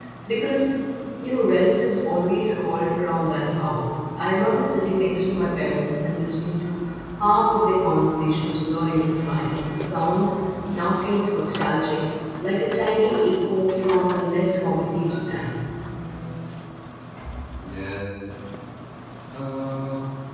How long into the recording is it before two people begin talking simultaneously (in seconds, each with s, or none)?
none